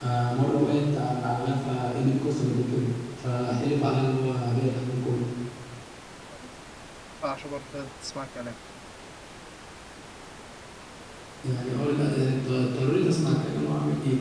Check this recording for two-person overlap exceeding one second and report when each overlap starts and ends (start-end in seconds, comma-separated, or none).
none